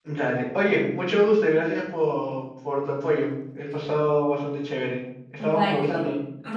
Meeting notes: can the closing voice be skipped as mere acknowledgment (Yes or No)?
No